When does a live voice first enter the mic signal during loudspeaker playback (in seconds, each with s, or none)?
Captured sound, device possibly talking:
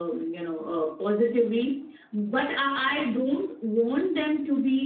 none